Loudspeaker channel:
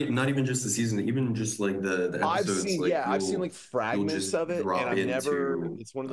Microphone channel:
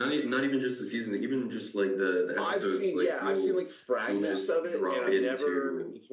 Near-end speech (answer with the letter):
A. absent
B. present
B